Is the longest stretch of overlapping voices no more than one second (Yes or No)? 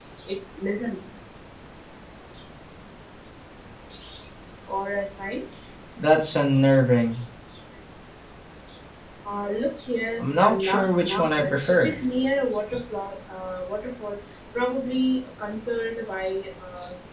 No